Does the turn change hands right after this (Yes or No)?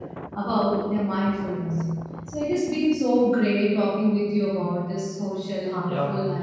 No